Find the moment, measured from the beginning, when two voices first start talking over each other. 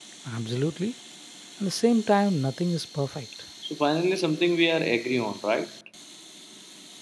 none

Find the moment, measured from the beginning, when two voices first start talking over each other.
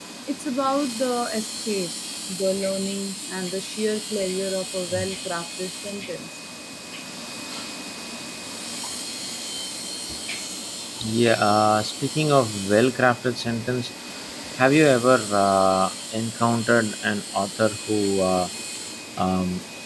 none

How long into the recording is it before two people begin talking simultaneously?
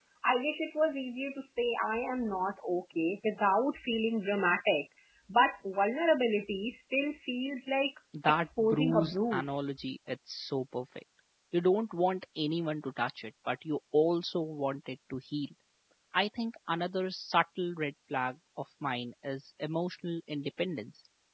8 s

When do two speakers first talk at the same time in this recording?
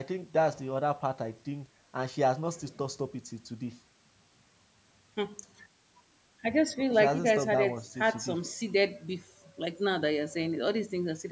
7 s

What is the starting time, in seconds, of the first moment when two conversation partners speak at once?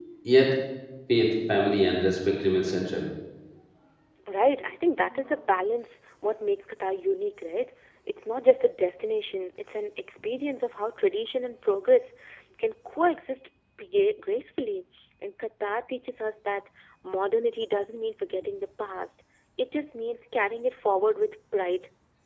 none

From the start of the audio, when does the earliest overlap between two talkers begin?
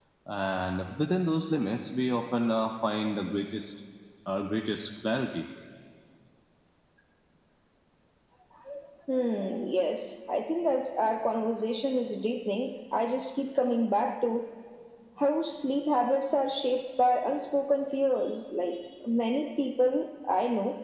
none

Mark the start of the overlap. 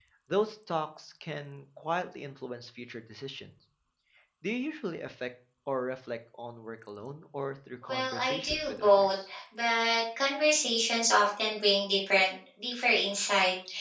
8 s

